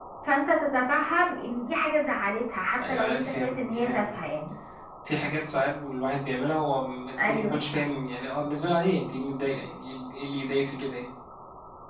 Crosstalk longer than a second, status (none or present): present